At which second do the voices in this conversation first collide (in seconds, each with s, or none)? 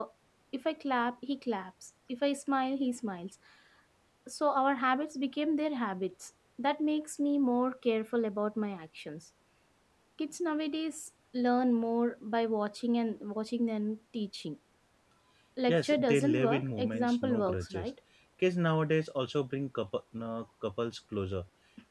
15.7 s